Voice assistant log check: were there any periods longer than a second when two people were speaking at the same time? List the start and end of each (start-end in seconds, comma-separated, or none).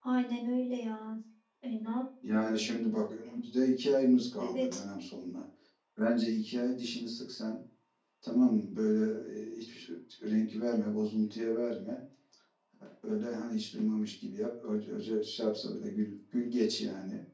none